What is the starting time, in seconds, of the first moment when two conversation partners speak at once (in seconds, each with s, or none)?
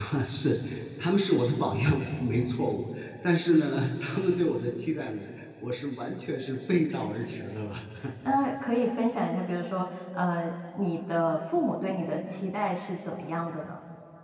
none